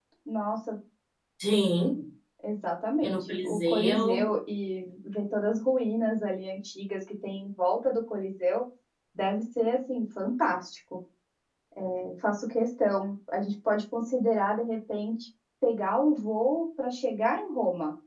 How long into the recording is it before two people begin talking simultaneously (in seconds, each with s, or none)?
3.0 s